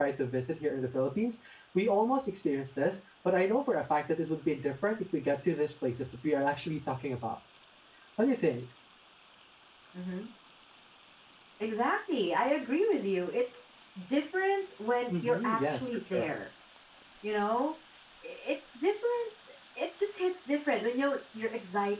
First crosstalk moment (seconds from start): 15.1 s

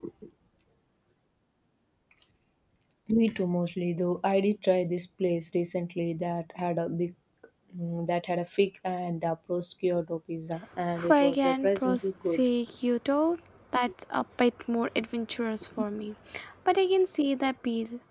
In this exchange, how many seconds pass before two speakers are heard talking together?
11.0 s

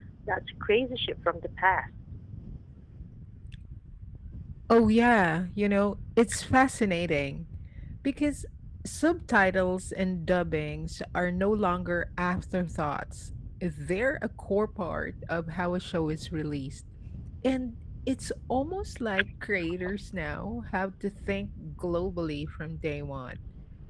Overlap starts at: none

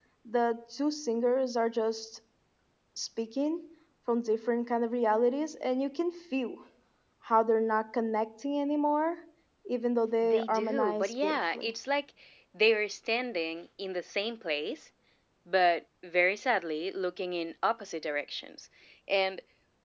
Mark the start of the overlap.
10.2 s

